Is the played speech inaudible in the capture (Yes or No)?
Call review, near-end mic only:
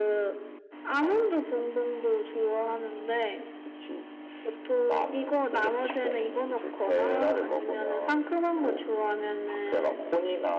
No